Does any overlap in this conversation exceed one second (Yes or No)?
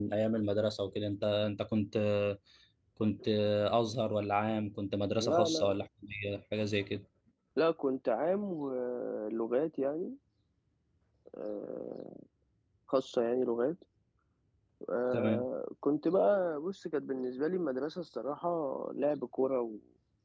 No